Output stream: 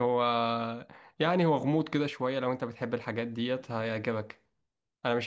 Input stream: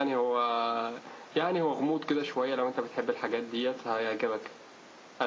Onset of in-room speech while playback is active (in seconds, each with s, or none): none